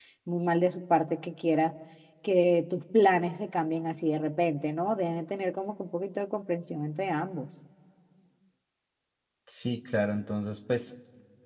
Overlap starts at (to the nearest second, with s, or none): none